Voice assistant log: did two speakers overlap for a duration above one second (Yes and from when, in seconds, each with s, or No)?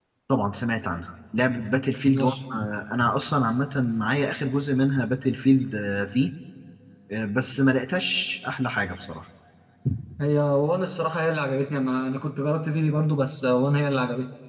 No